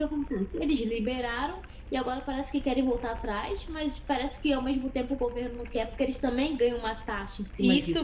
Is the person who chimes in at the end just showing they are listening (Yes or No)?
No